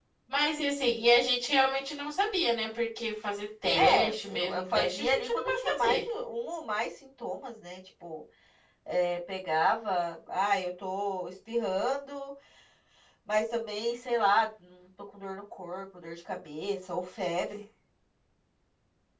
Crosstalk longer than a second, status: present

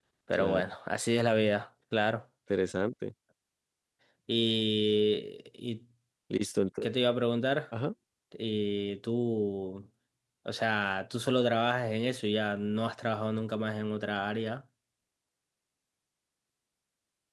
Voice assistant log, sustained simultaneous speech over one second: none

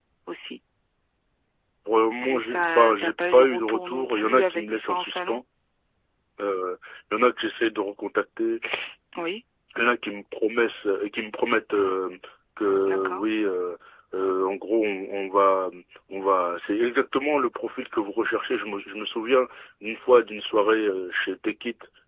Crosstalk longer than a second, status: present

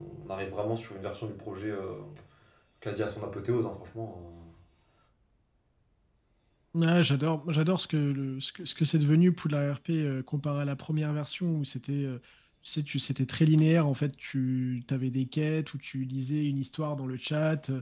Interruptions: none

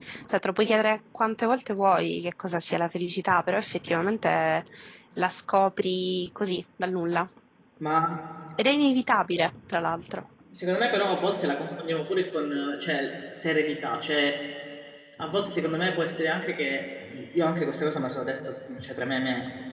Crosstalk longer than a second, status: none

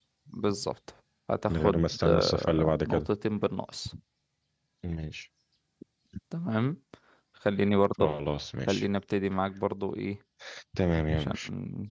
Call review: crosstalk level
present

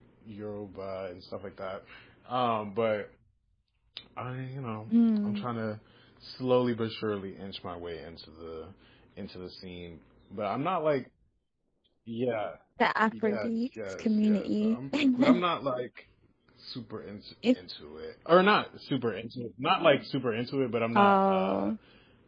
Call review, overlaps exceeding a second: present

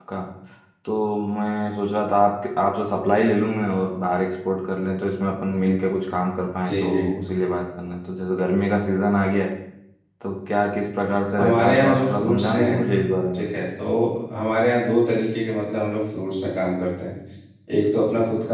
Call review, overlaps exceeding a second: present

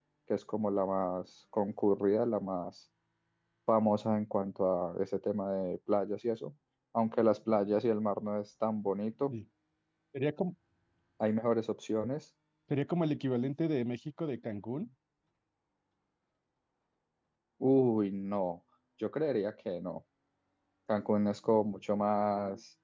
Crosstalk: none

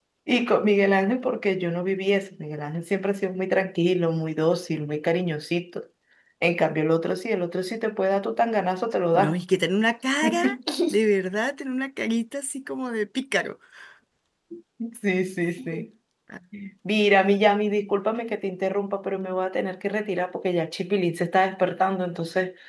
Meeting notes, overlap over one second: none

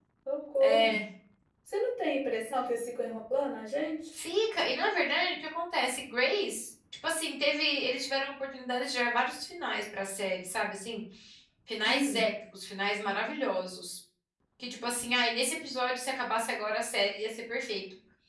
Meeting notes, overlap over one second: none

